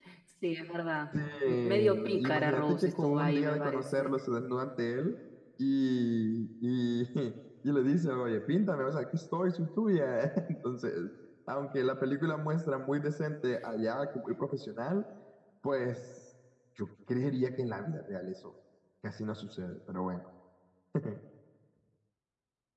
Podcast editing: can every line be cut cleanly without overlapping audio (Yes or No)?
No